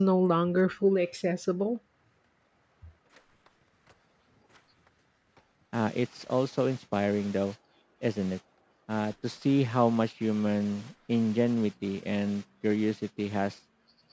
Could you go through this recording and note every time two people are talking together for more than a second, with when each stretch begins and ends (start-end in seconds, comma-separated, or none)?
none